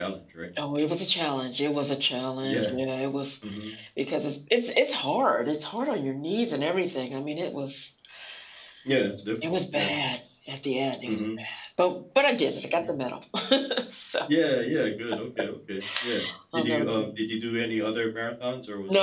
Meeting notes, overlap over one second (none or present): none